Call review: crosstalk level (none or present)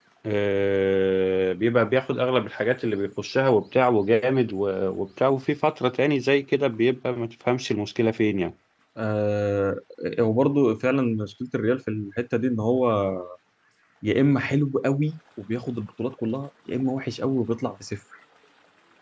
none